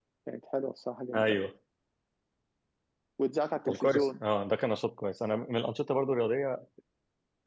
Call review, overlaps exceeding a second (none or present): none